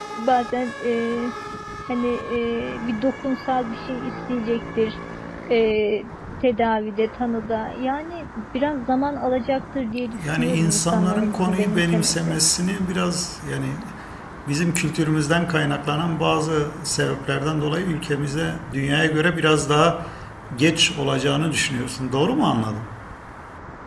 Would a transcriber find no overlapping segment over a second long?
No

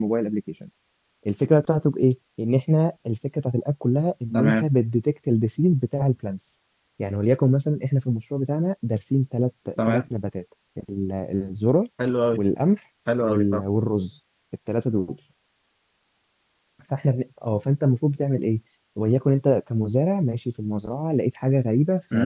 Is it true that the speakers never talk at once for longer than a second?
Yes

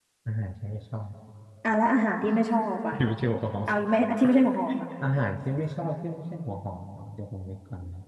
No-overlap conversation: Yes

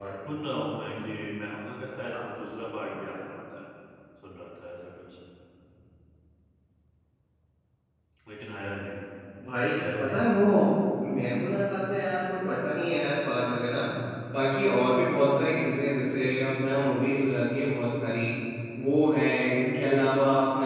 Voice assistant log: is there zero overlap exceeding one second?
Yes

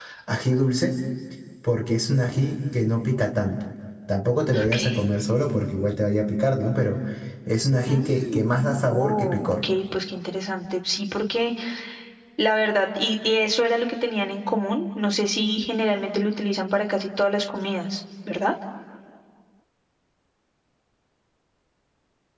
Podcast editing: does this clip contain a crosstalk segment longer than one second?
Yes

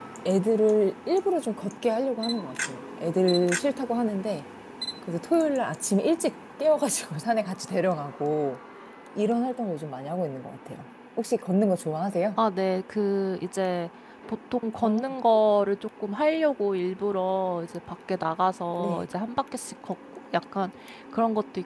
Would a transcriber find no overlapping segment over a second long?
Yes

